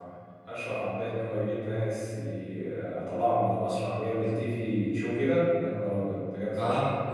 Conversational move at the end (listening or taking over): taking over